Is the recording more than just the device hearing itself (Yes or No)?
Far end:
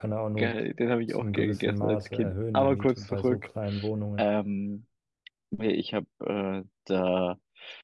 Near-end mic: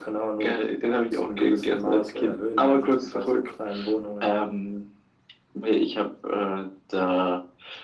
No